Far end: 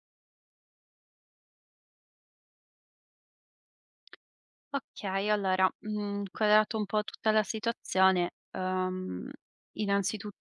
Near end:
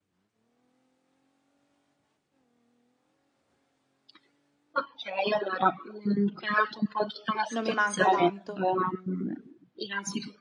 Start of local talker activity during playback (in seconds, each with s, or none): 7.5 s